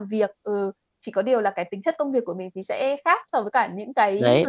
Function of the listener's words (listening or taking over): taking over